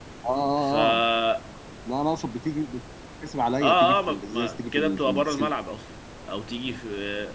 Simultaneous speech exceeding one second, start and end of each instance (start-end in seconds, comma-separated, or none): 3.6-5.5